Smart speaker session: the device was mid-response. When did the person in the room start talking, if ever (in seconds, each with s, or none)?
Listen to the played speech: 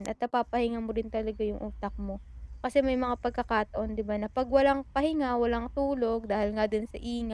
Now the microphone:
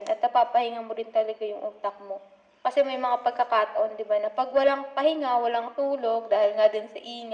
none